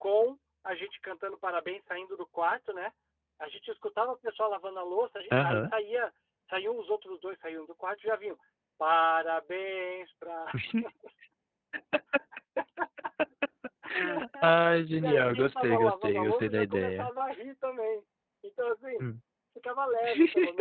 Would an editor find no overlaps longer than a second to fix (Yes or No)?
No